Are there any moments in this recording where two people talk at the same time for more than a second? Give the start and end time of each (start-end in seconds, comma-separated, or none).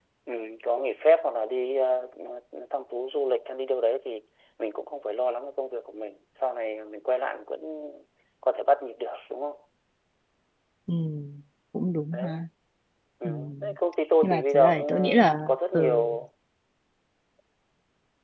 14.2-16.0